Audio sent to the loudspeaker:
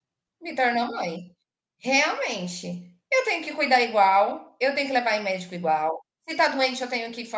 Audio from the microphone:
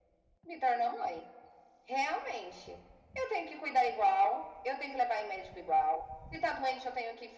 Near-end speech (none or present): none